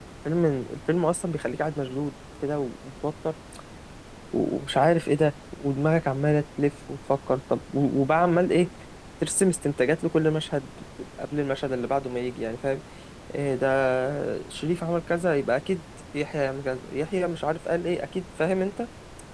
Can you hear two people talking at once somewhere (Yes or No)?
No